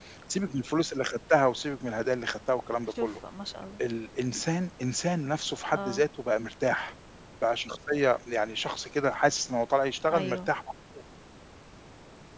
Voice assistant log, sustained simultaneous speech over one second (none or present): none